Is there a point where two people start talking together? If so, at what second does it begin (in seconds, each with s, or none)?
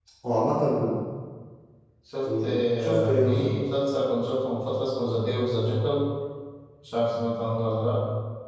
2.2 s